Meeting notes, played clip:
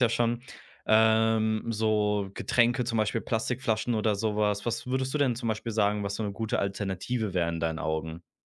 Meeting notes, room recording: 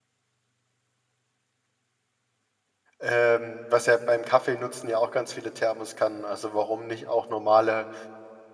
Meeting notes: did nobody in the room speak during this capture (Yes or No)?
No